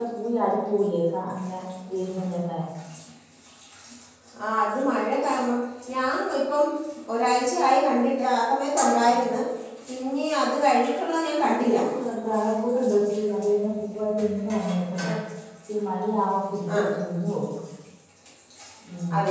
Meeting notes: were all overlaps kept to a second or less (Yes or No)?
Yes